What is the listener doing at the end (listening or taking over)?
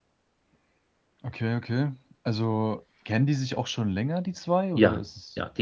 taking over